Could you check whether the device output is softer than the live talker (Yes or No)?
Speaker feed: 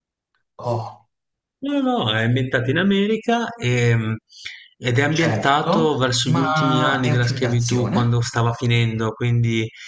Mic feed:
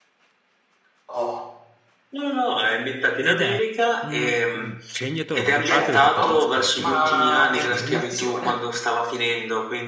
No